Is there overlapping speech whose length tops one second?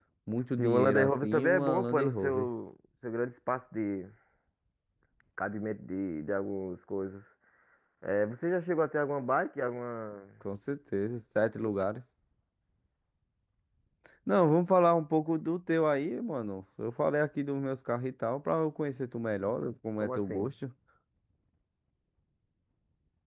Yes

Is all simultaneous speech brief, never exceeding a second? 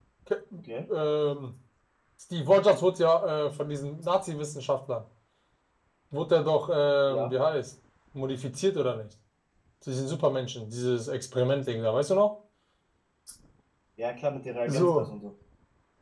Yes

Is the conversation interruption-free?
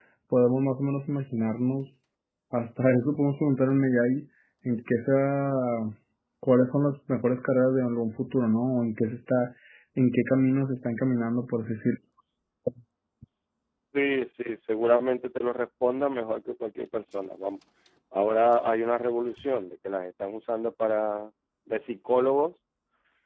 Yes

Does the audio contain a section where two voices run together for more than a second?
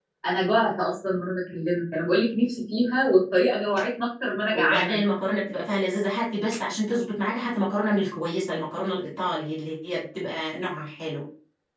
No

